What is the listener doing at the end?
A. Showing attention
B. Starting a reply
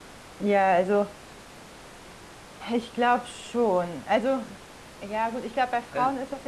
A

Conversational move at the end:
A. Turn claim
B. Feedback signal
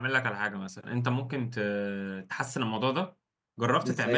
B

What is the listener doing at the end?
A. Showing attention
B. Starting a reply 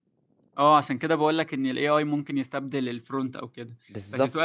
A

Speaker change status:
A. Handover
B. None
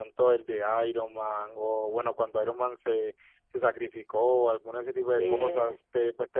B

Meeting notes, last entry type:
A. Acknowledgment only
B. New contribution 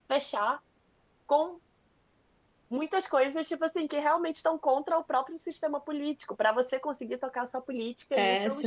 B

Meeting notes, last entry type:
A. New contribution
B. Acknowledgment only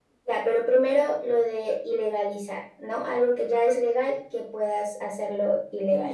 A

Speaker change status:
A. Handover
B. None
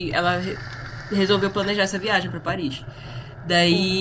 B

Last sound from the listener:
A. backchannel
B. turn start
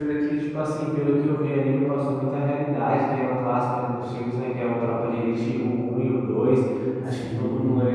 A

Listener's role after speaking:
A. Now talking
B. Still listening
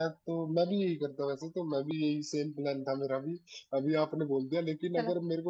B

